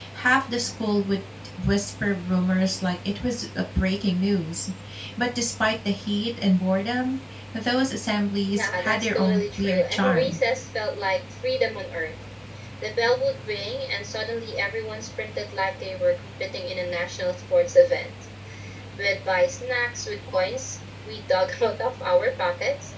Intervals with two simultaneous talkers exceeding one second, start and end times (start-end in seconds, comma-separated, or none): 8.5-10.4